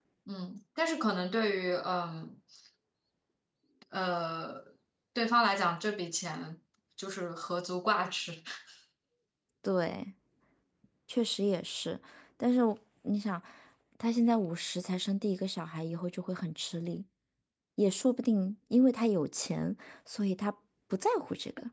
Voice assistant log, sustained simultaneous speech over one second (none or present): none